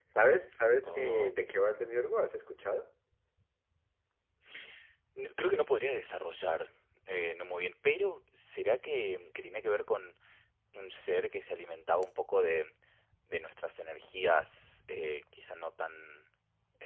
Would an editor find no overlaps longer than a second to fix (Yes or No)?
Yes